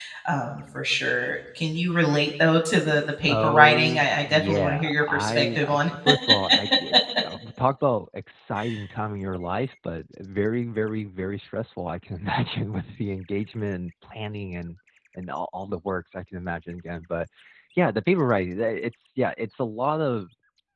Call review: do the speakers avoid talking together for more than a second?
No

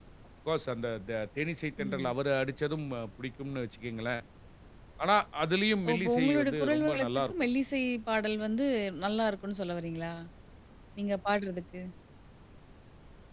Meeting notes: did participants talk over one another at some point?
Yes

